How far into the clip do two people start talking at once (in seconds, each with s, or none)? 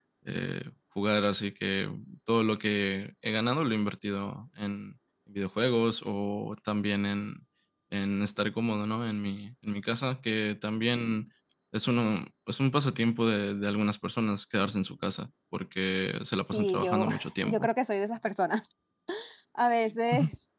16.3 s